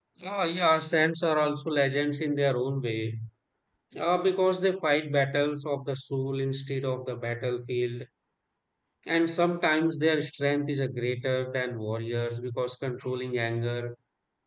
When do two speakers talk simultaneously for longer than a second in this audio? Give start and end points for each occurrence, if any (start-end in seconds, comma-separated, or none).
none